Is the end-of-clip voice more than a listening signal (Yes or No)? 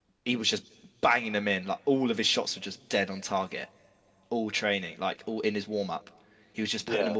No